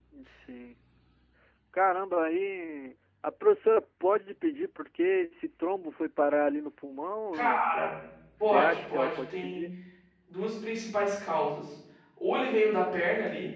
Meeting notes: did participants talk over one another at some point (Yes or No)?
Yes